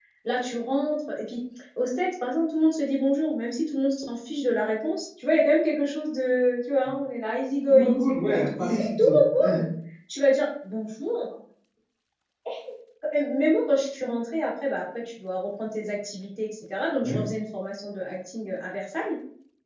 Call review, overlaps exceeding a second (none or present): present